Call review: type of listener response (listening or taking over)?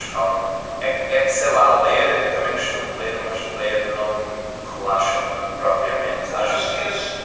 taking over